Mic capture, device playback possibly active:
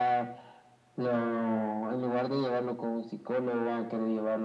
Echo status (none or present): present